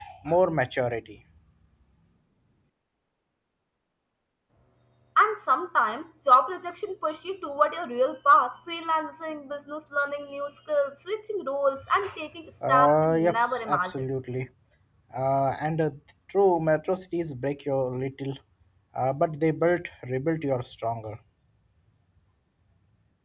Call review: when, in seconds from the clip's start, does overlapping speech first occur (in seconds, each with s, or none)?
12.7 s